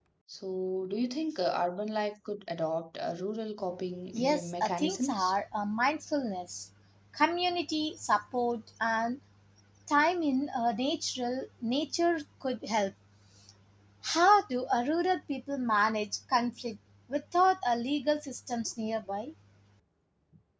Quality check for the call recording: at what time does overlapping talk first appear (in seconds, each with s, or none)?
4.1 s